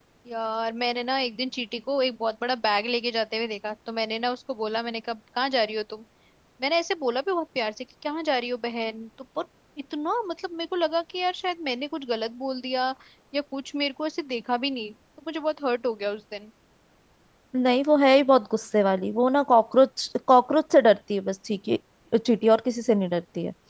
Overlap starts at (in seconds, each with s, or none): none